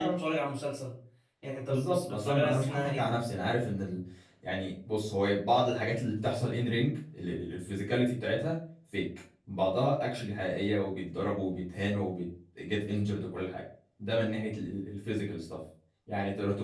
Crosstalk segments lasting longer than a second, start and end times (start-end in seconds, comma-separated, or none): 1.6-3.0